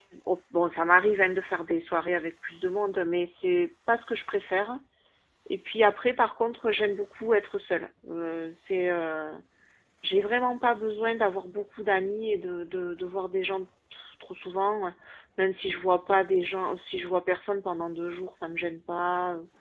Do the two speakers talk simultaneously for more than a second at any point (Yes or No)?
No